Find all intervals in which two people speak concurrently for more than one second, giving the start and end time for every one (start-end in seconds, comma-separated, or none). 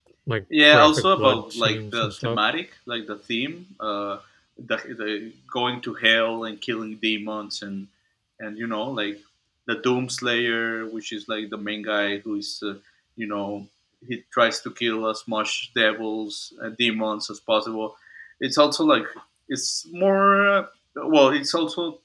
0.7-2.4